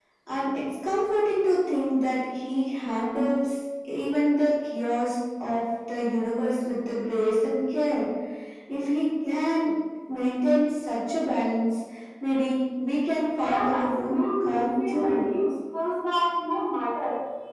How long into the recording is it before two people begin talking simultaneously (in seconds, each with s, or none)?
13.3 s